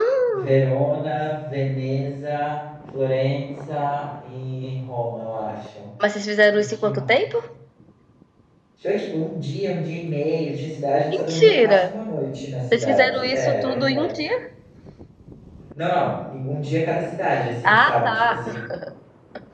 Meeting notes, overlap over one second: present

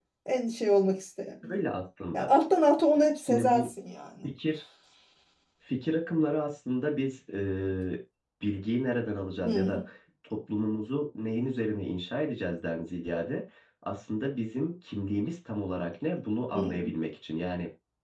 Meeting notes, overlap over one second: none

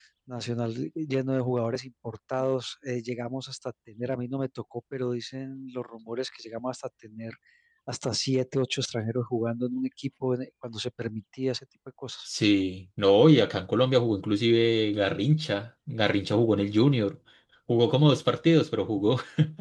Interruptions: none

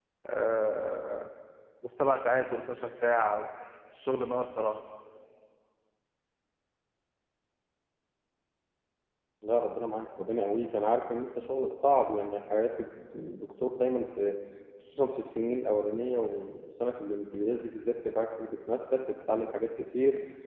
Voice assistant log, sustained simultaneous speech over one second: none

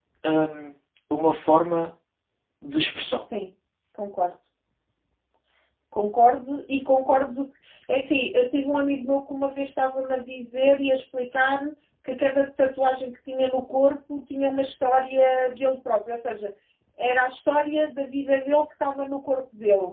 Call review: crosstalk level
none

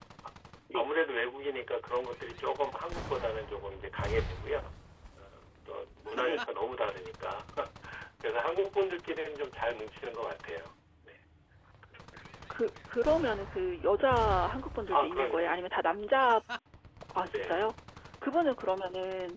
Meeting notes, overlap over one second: none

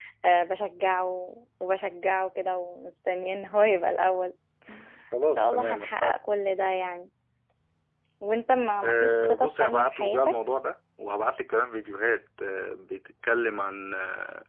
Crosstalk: present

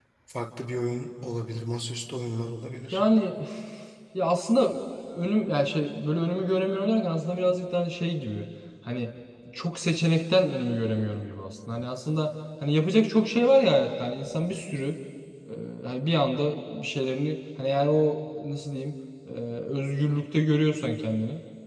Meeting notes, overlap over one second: none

